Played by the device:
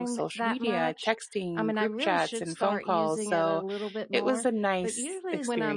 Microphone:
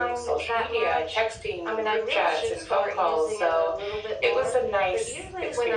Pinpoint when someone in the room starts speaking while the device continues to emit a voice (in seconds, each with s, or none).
none